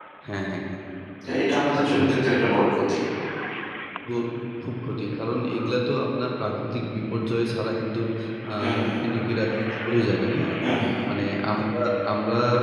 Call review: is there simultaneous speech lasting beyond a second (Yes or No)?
No